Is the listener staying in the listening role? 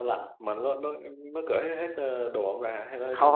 No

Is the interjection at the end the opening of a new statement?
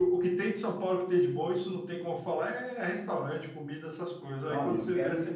Yes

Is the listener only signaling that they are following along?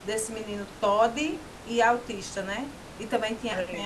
Yes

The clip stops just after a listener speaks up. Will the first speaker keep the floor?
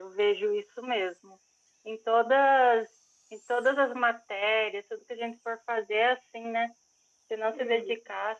Yes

